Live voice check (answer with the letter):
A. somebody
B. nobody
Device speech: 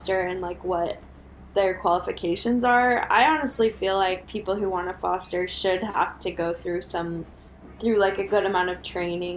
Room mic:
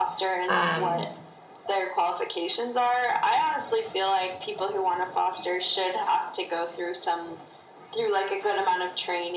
A